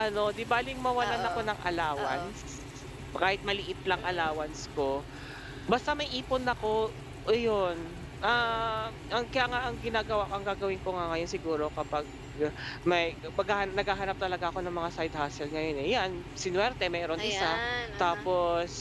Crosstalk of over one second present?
No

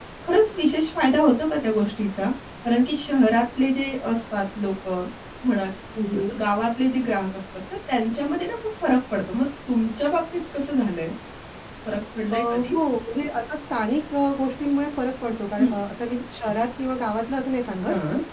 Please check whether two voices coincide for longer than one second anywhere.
No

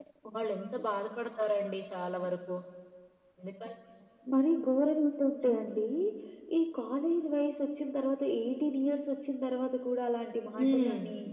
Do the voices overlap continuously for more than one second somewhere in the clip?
No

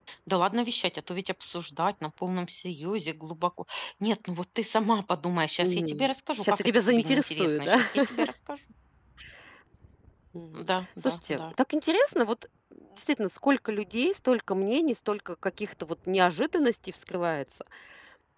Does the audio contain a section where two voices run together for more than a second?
Yes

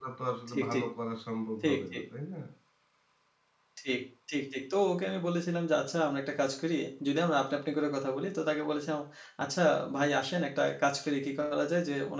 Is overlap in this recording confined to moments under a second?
Yes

